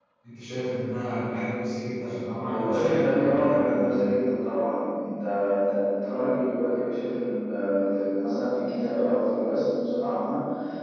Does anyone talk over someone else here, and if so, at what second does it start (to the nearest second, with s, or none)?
2 s